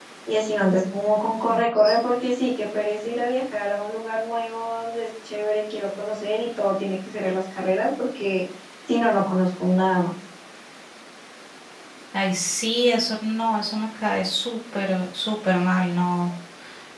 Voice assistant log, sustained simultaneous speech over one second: none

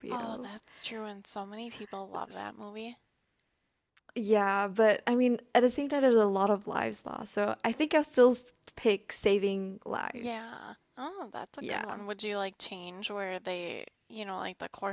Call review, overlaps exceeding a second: none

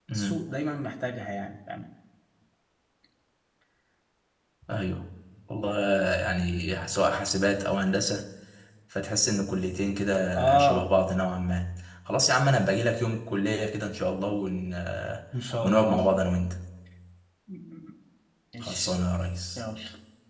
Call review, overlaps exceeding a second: none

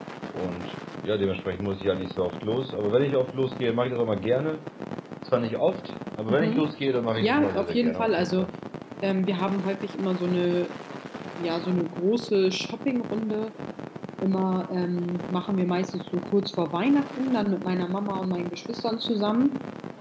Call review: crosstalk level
present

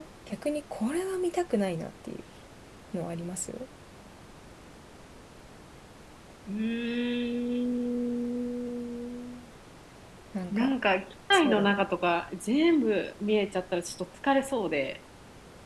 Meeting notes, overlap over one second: none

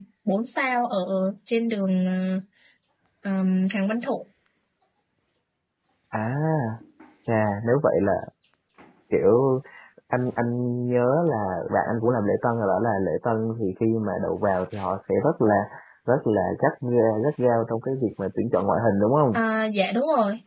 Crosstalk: none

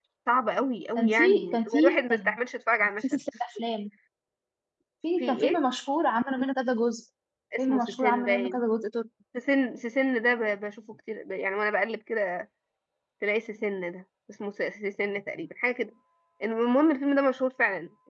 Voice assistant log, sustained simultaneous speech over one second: present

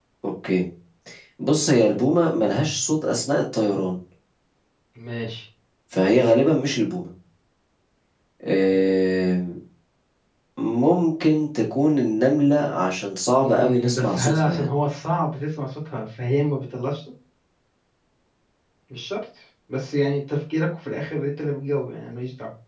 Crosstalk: present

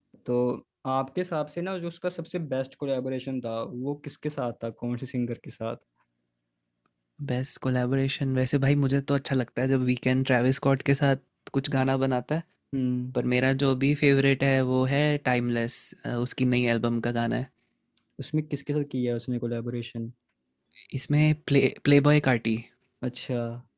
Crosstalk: none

